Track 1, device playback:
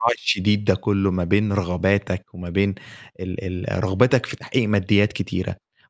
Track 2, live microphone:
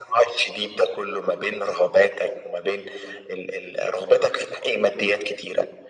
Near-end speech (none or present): none